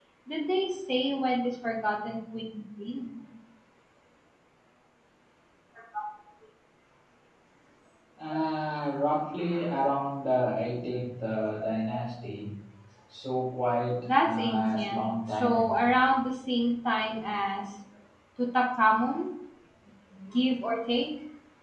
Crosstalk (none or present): present